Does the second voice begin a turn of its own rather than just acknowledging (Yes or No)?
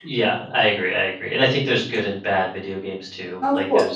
No